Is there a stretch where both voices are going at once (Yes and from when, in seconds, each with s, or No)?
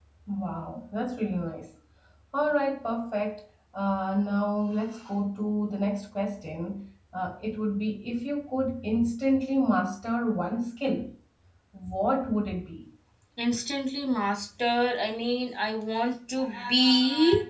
No